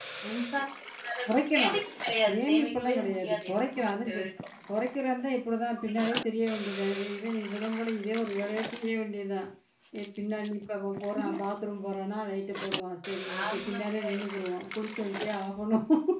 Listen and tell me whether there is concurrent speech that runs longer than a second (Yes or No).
Yes